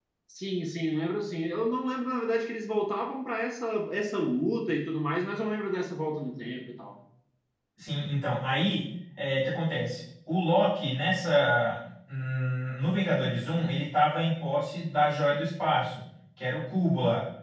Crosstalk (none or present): none